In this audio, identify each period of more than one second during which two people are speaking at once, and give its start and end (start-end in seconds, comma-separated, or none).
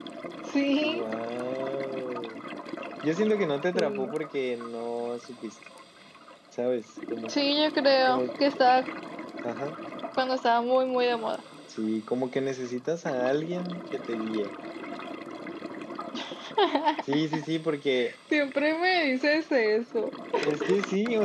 none